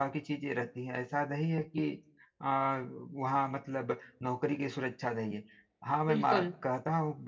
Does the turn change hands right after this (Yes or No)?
No